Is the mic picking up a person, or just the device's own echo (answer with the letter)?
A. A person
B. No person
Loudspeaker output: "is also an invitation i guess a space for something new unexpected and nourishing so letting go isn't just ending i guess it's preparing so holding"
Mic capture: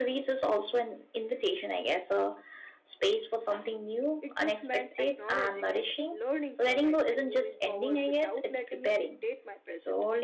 A